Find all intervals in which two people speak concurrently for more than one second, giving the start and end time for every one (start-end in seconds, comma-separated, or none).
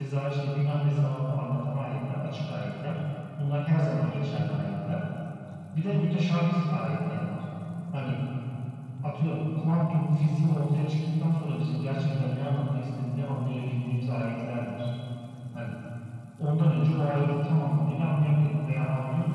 none